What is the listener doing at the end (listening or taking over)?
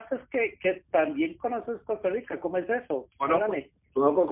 taking over